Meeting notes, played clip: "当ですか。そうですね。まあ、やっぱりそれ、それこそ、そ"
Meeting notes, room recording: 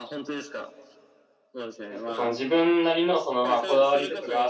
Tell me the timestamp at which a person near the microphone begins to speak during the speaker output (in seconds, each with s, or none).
1.9 s